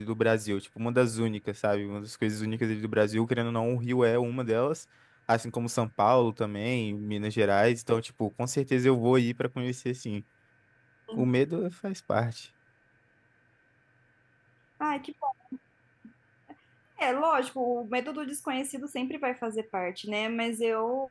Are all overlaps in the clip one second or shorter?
Yes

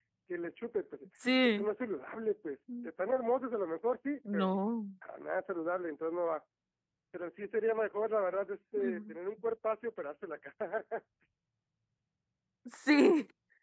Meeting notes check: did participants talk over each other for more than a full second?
No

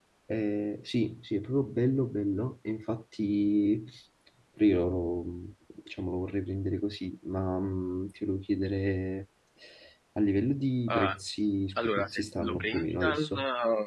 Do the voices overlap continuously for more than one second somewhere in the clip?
Yes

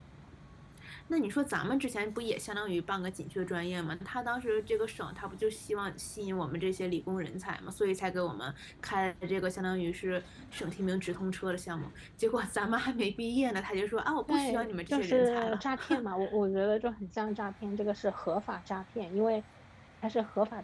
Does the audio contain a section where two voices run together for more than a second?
Yes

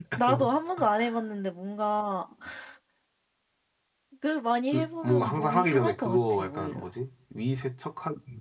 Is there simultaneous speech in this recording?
Yes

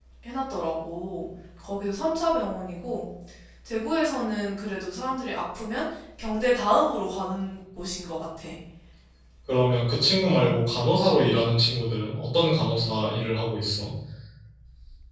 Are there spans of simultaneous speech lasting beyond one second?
No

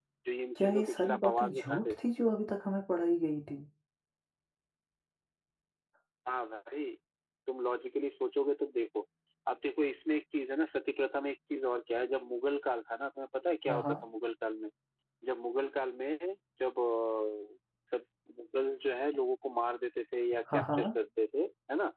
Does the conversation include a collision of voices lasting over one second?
Yes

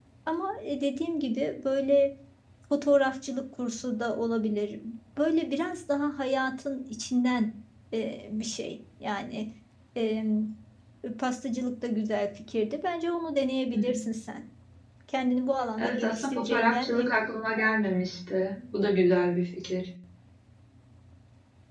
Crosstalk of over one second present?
Yes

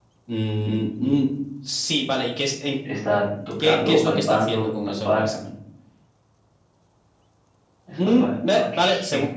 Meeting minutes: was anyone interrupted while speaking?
Yes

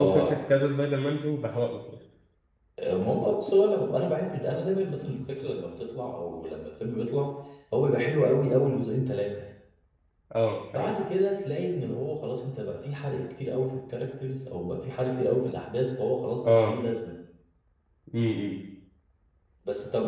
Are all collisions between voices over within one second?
Yes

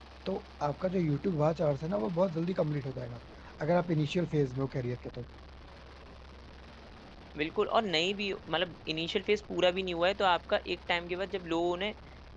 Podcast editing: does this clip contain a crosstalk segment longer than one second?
No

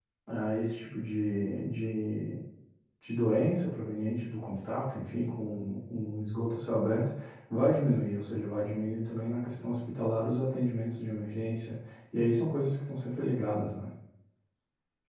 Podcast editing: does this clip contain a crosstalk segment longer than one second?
No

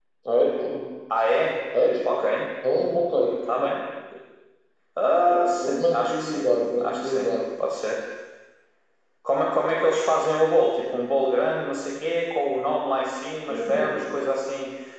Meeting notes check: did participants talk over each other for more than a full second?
Yes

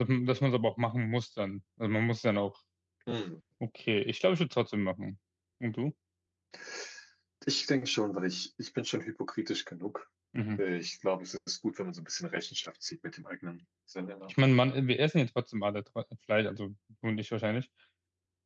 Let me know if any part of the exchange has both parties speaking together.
No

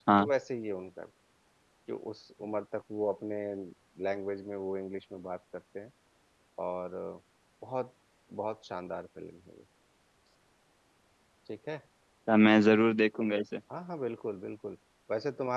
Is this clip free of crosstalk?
Yes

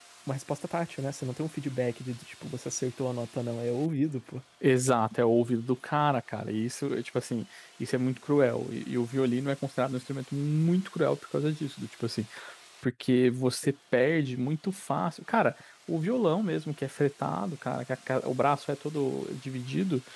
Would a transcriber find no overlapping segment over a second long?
Yes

